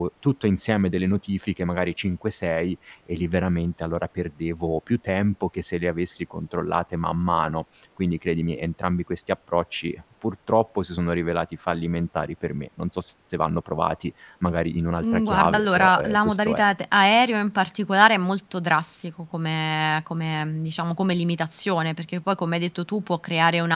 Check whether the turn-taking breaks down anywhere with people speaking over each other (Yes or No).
Yes